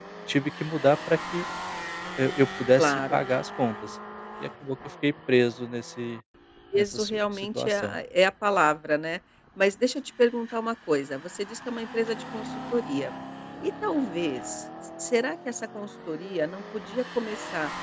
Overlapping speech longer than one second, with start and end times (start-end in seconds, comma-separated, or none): 6.8-8.0